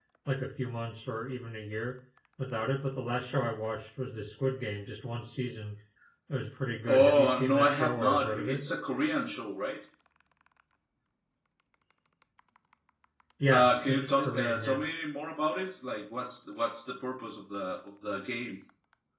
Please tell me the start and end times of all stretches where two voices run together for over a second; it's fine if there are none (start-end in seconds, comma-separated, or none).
6.9-8.6, 13.5-14.8